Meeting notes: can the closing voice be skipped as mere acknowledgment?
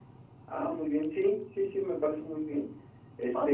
No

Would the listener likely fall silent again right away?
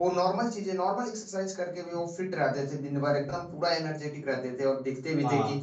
Yes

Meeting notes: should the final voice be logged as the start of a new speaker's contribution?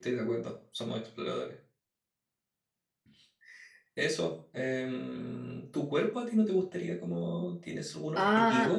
Yes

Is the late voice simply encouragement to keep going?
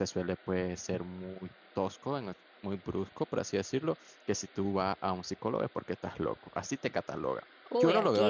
No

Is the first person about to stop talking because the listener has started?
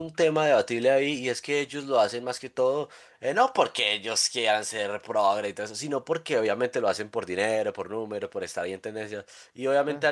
No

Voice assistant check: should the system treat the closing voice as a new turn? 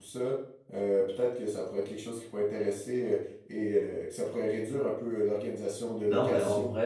Yes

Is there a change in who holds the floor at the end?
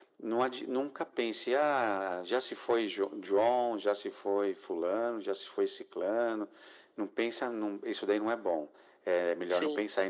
No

